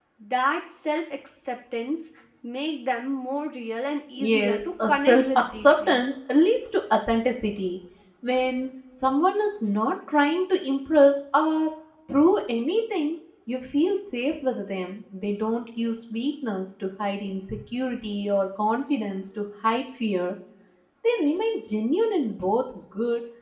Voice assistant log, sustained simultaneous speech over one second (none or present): present